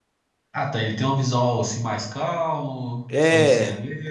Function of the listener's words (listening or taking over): taking over